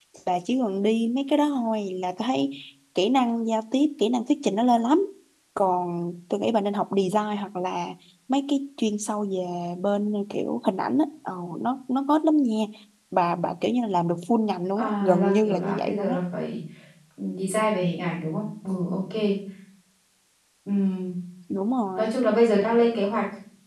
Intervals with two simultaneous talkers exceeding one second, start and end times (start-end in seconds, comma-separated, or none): 14.8-16.2